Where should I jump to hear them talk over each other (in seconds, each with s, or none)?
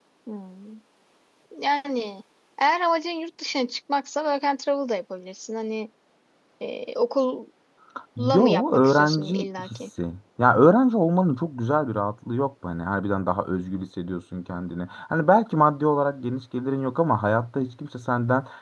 8.4 s